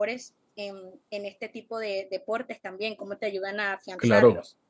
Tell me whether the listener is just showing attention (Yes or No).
No